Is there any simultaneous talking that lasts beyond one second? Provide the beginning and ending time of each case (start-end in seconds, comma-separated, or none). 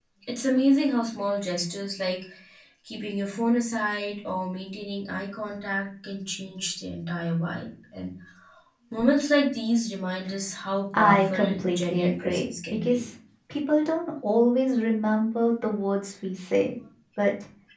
10.9-13.1